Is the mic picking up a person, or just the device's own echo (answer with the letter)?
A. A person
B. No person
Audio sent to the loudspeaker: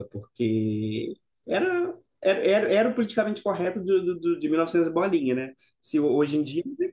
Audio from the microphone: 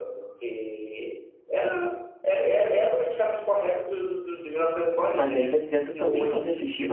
A